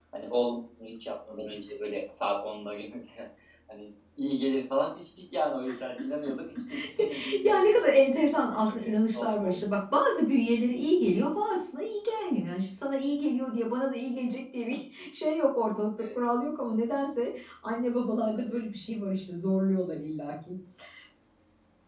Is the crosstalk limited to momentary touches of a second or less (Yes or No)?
No